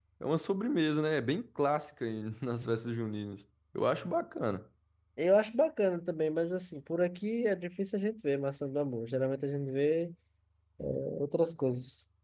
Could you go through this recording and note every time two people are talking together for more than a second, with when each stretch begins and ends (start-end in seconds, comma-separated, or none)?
none